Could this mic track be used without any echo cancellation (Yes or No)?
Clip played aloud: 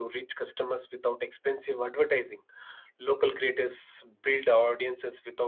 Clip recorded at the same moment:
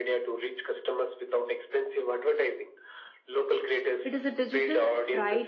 No